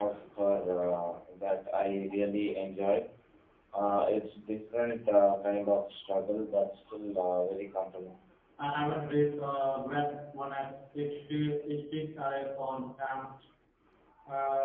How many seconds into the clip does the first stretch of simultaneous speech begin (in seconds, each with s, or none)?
none